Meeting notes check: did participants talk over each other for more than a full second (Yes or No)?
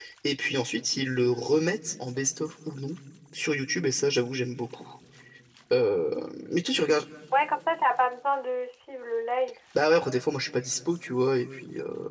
No